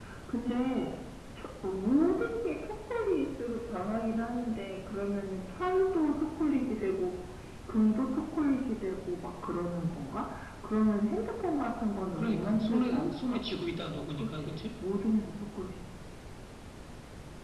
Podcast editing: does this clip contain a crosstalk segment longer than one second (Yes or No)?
Yes